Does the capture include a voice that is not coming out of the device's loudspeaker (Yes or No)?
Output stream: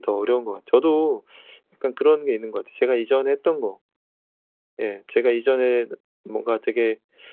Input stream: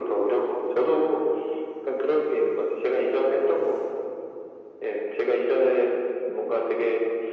No